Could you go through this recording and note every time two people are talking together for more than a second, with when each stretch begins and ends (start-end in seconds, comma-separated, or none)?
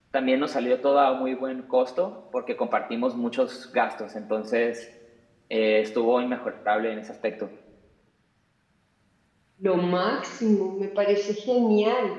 none